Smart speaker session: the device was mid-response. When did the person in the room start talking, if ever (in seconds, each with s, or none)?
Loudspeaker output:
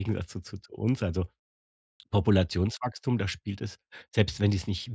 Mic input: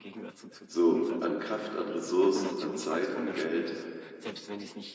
0.6 s